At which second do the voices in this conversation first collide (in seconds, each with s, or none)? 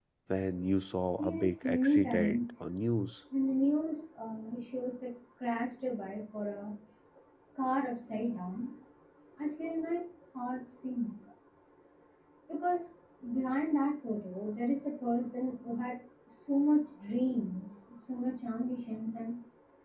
1.2 s